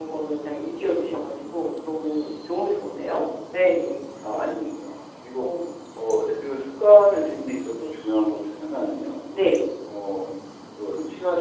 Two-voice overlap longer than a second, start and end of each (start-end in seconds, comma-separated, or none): none